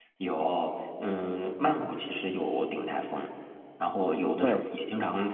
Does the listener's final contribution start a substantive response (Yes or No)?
No